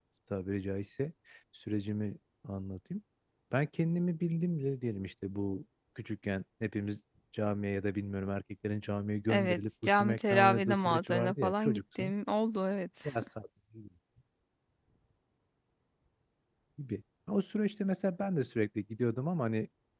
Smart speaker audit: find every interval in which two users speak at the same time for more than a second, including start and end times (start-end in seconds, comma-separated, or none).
9.3-12.1